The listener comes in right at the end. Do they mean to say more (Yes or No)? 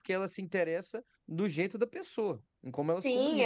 Yes